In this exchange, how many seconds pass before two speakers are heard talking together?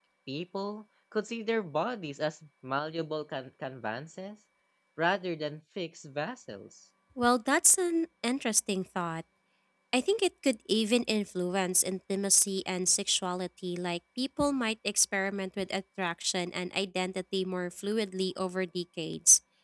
none

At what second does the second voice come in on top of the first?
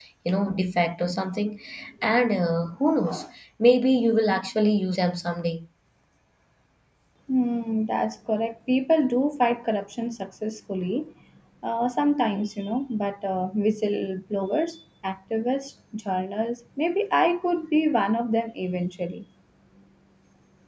none

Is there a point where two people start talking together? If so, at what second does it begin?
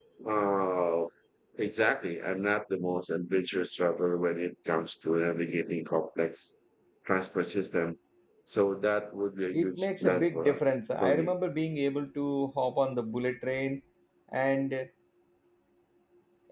10 s

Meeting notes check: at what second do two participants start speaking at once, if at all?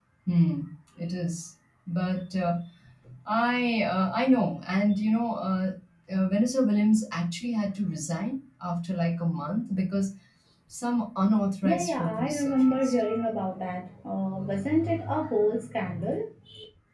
12 s

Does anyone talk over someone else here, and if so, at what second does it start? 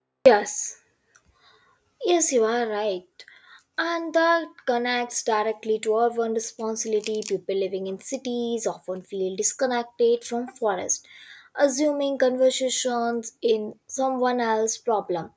none

